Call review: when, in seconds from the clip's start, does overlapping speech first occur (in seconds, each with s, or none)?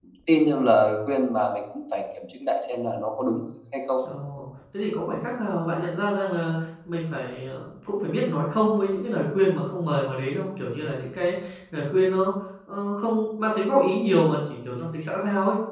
none